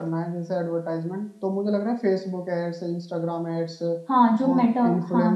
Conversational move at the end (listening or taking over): taking over